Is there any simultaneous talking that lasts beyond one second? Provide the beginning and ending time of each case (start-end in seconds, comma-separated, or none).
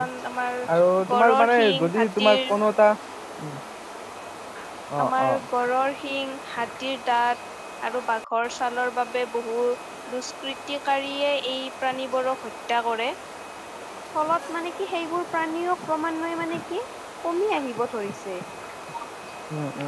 1.1-2.4